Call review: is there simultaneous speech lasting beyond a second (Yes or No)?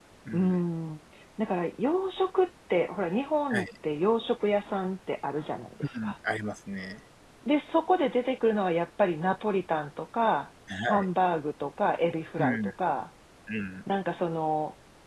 No